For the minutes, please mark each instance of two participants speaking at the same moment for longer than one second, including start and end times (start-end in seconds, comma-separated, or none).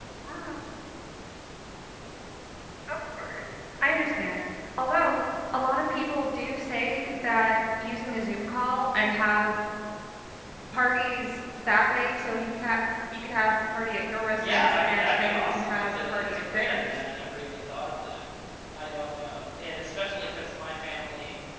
14.4-16.9